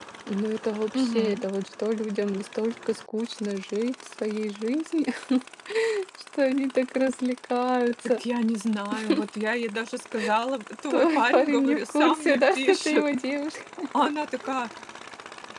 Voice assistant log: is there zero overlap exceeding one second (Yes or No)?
No